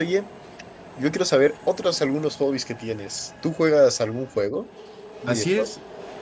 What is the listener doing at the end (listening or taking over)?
taking over